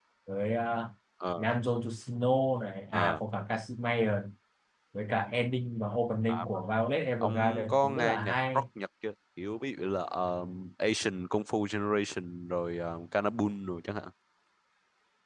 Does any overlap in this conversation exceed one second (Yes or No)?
Yes